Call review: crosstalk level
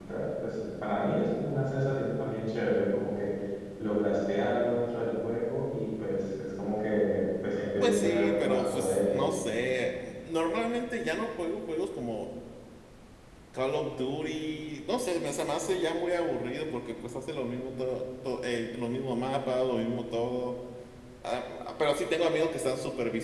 present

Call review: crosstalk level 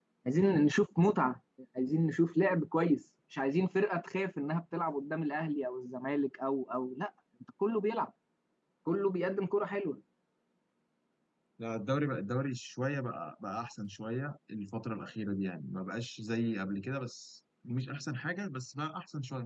none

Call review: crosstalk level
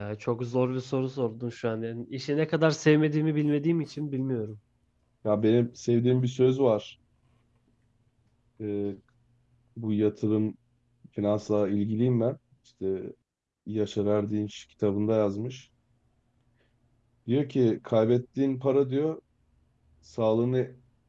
none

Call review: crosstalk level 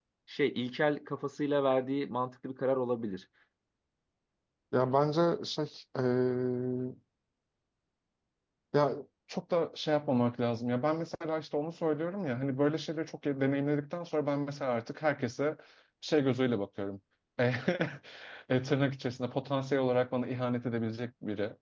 none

